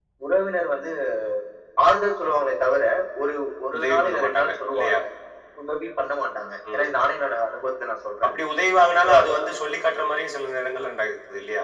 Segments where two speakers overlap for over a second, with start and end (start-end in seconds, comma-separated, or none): 3.8-5.0